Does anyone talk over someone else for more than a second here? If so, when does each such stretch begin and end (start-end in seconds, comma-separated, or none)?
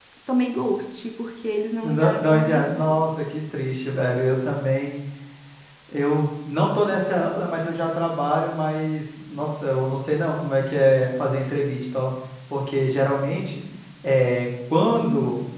1.8-3.0